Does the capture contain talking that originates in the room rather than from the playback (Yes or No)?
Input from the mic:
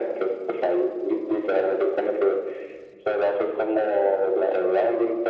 No